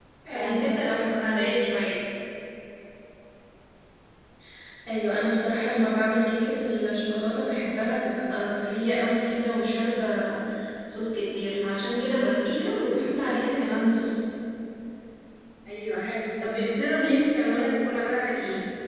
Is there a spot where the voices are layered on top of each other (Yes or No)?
Yes